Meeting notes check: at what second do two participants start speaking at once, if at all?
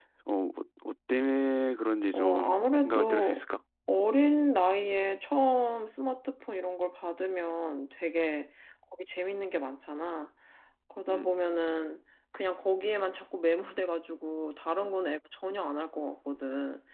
2.1 s

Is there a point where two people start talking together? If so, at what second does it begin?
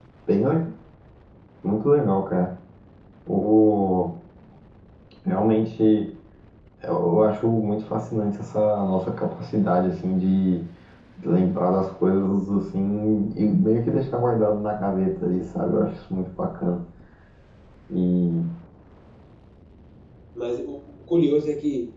none

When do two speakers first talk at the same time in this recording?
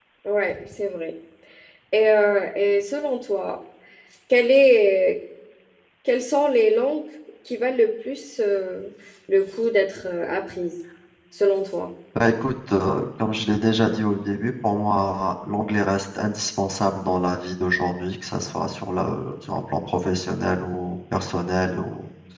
none

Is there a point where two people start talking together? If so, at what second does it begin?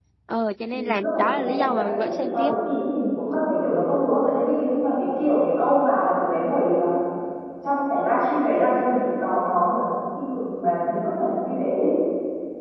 0.7 s

